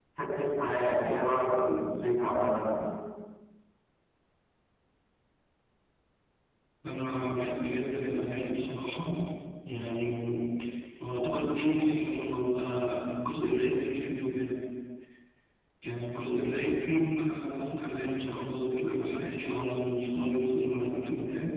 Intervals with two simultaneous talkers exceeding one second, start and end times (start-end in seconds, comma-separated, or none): none